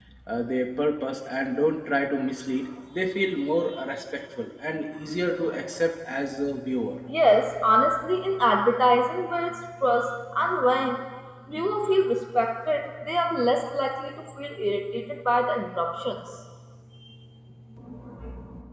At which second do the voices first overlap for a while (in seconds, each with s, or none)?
none